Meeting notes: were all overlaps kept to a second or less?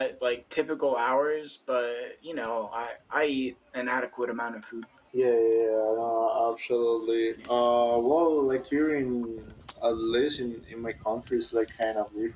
Yes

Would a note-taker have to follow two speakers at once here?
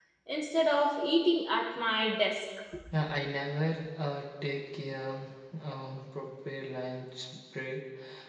No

